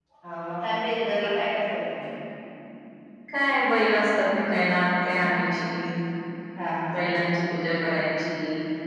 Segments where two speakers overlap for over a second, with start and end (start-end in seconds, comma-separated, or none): none